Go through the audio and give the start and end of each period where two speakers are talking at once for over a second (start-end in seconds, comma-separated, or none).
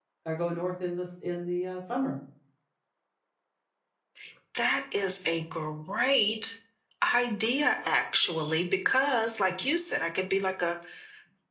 none